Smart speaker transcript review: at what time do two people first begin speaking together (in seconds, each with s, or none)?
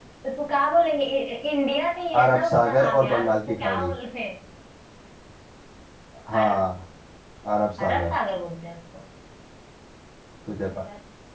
2.2 s